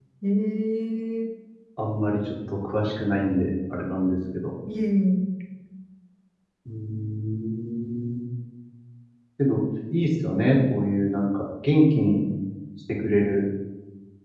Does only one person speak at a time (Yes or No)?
Yes